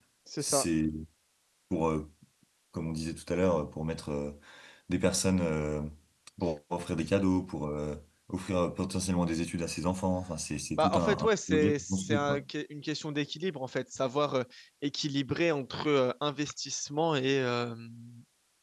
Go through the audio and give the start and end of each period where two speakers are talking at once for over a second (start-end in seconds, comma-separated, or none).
10.8-12.4